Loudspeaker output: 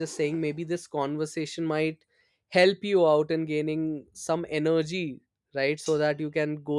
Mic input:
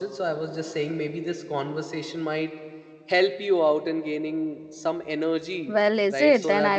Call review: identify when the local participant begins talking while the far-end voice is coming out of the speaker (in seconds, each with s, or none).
5.7 s